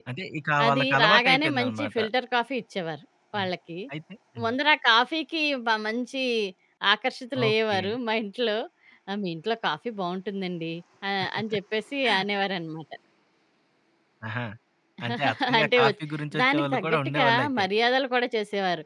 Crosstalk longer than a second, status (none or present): present